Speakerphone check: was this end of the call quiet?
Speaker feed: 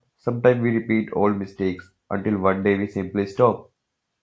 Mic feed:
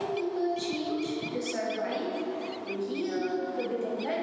No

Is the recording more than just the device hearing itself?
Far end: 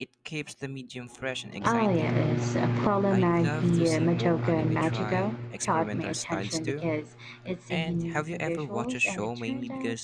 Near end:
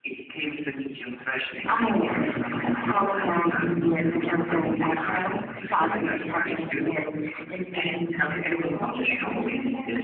No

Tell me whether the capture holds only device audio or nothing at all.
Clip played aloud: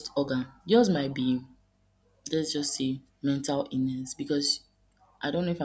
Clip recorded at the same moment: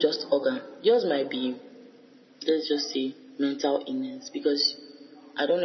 Yes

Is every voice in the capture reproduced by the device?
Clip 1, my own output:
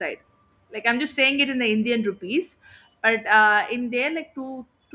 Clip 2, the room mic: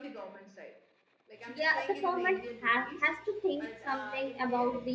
No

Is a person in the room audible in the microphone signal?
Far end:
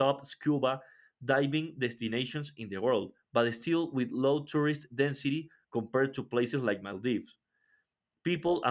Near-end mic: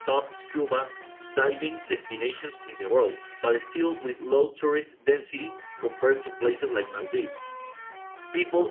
No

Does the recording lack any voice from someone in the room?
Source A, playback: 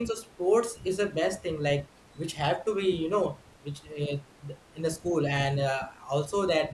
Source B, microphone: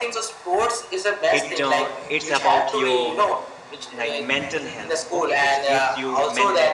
No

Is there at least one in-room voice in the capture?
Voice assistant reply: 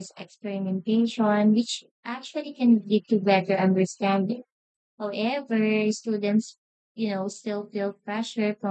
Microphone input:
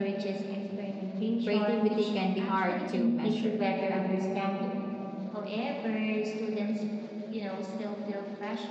Yes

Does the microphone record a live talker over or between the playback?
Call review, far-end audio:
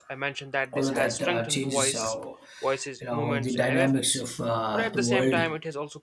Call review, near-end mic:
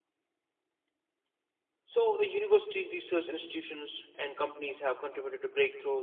Yes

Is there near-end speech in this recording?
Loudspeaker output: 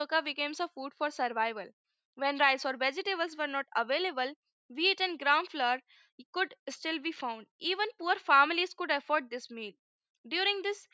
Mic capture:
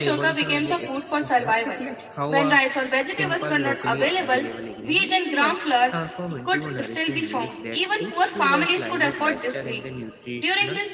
Yes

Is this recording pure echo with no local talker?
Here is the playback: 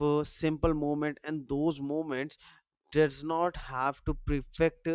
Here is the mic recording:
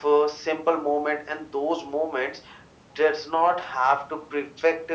Yes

